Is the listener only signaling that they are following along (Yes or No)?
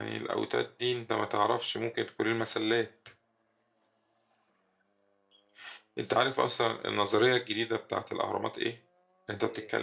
Yes